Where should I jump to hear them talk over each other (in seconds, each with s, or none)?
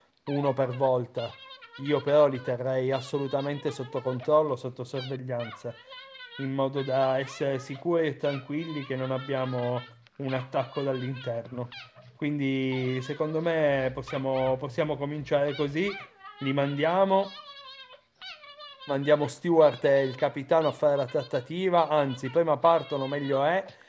none